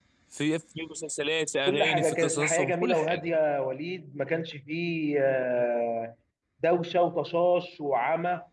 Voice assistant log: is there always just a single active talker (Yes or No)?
No